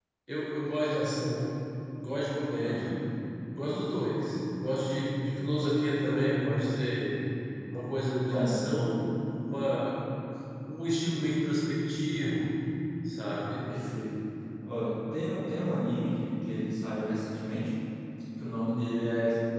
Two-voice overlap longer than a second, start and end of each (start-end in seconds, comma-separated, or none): none